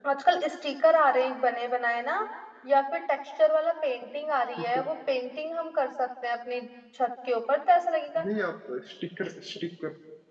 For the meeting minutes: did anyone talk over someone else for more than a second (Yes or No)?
No